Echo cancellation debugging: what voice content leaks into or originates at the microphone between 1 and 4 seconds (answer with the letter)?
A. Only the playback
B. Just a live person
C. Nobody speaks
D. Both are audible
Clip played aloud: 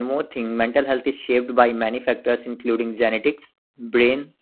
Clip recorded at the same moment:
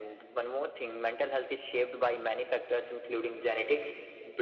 A